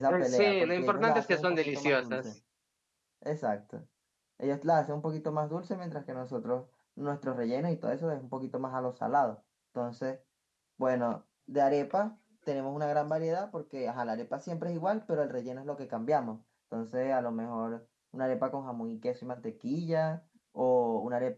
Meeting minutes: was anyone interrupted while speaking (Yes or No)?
Yes